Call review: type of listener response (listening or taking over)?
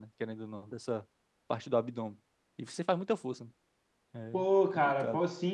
taking over